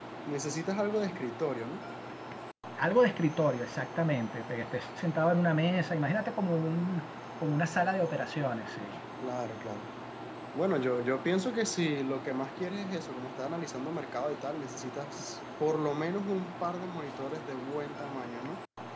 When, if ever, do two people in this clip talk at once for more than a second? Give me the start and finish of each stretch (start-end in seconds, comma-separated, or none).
none